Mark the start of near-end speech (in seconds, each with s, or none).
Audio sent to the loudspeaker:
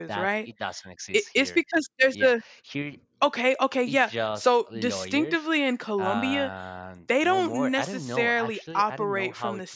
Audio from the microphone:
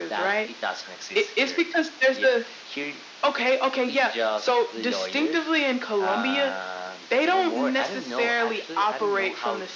none